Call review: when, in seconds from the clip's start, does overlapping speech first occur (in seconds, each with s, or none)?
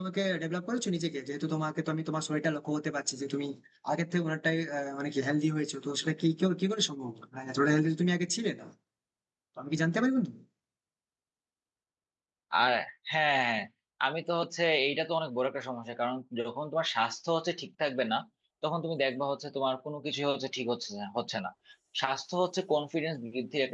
none